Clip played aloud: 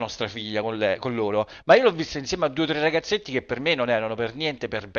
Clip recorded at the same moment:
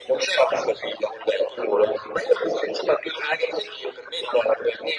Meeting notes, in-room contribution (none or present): none